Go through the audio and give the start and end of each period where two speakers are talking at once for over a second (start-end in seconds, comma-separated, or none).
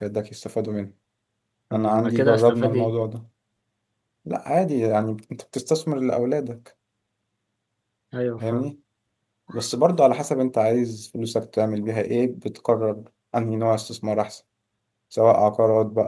1.7-2.9